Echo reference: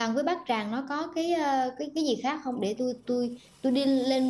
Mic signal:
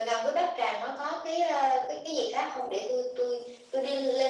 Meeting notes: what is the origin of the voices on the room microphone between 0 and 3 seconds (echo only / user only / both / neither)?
echo only